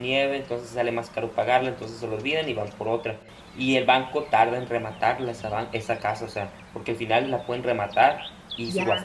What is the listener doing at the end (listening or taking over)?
listening